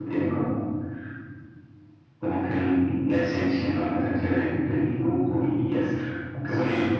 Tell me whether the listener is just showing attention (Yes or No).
Yes